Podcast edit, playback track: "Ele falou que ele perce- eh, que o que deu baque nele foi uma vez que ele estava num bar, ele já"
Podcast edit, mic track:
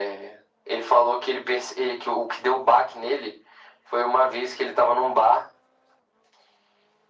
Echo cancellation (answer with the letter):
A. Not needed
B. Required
B